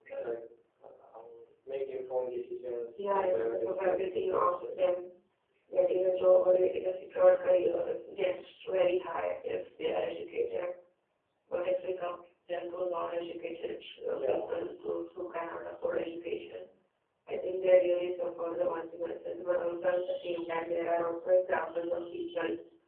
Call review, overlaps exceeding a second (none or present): present